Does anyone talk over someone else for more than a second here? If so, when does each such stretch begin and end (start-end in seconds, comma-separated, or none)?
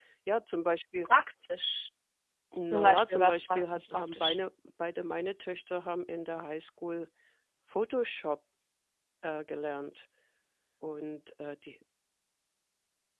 2.7-4.4